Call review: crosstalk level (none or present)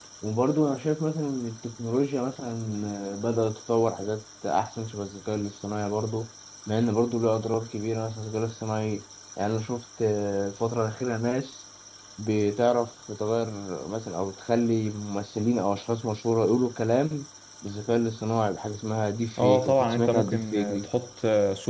present